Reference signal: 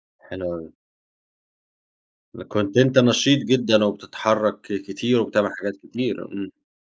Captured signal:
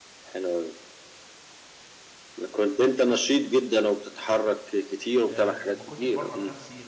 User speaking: Yes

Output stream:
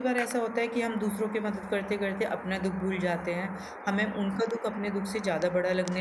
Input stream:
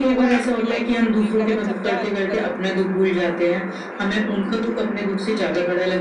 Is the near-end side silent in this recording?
No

